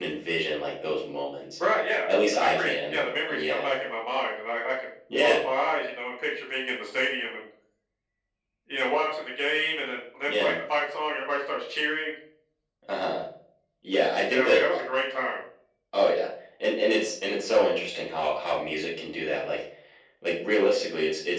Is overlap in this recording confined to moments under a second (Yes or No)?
No